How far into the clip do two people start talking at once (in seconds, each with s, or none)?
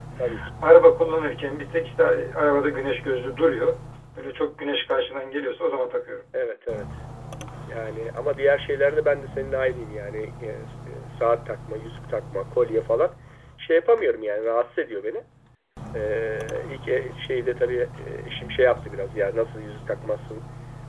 none